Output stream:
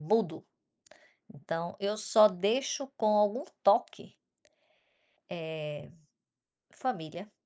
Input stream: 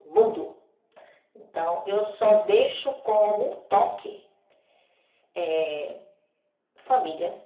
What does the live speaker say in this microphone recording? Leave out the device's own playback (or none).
none